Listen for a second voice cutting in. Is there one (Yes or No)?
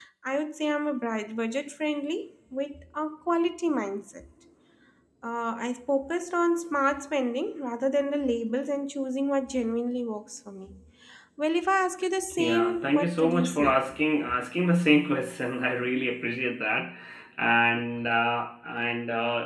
Yes